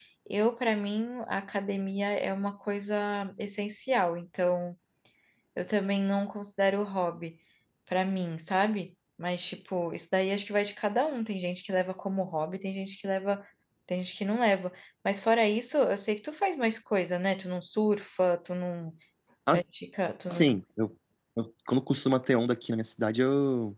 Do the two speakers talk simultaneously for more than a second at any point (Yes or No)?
No